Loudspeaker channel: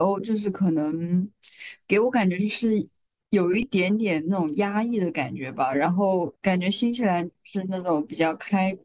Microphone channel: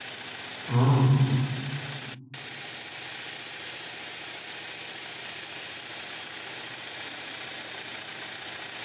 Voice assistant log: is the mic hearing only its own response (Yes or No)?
No